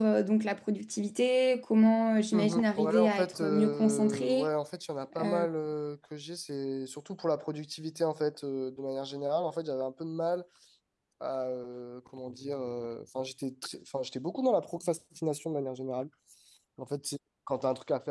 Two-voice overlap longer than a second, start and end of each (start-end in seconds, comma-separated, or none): 2.3-4.5